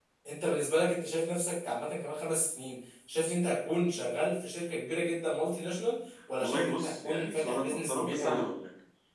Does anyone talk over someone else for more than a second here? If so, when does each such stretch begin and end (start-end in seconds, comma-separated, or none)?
6.4-8.4